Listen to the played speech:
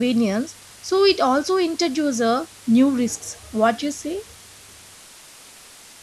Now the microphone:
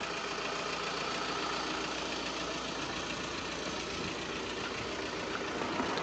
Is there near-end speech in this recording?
No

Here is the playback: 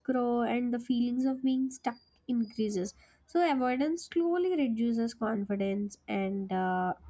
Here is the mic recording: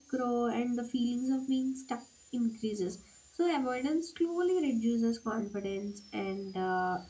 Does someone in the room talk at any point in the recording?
No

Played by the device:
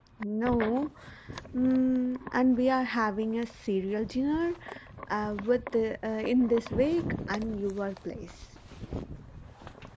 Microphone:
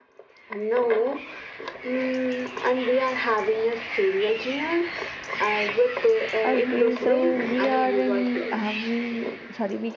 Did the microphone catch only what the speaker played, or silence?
No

